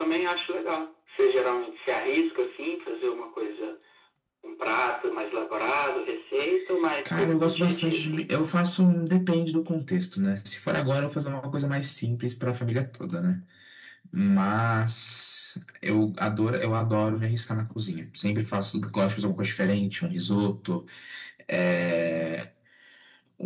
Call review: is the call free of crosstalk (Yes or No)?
No